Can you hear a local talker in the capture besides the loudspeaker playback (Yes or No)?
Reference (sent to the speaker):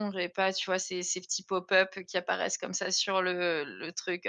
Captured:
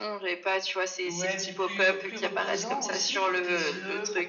Yes